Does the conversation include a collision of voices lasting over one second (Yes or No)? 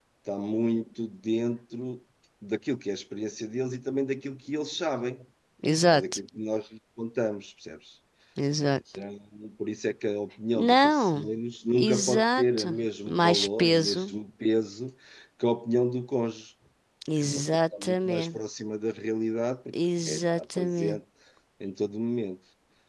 Yes